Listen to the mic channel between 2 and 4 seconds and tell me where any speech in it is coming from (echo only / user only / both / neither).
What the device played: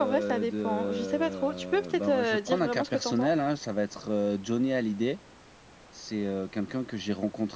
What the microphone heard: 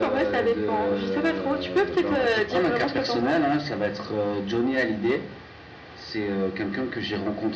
echo only